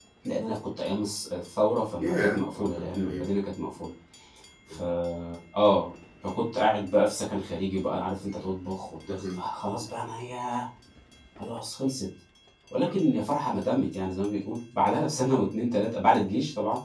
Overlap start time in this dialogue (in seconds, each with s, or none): 2.0 s